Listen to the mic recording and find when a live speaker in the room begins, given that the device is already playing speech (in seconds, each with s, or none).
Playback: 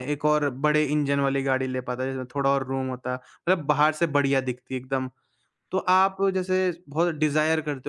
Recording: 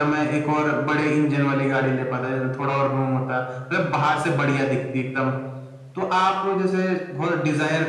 none